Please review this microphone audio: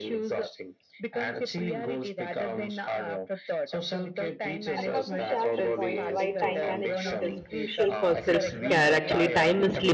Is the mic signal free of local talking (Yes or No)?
No